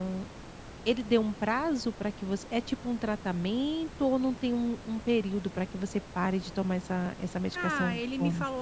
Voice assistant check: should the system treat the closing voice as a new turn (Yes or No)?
Yes